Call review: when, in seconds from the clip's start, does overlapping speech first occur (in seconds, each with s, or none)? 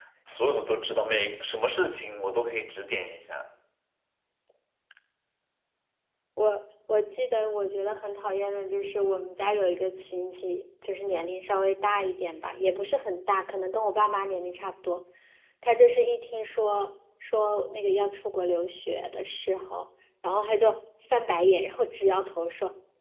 none